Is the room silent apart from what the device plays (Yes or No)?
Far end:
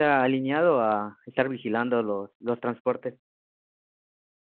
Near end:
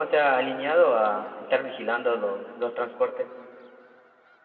Yes